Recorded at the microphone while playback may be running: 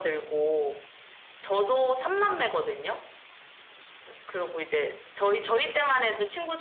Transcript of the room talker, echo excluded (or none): none